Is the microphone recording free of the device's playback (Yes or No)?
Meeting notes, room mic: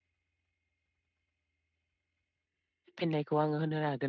Yes